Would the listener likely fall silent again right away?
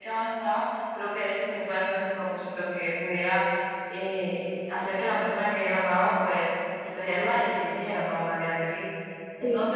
Yes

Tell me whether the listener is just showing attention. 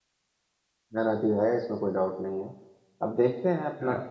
Yes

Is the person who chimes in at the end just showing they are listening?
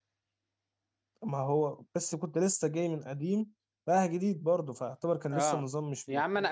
No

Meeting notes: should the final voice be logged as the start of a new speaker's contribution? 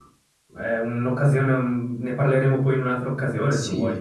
Yes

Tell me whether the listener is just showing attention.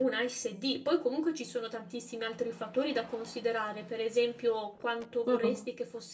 Yes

